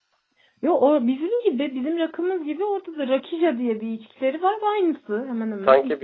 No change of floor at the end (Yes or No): No